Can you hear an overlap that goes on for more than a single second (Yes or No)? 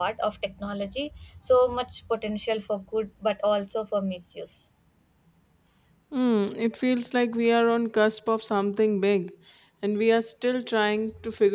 No